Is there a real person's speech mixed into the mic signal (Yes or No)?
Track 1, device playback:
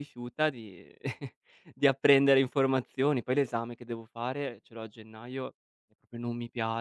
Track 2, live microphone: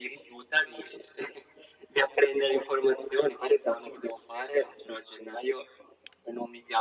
No